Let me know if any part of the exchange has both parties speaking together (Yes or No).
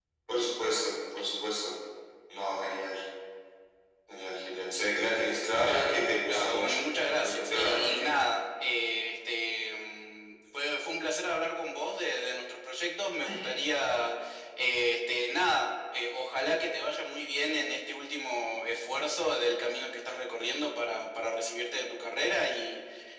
Yes